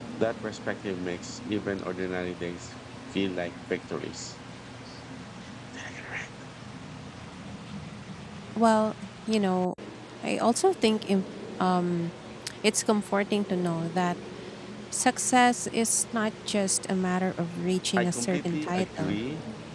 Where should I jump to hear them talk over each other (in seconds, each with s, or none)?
18.0 s